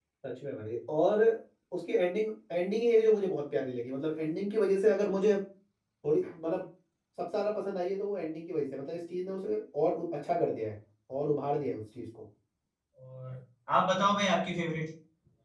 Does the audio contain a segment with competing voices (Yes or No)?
No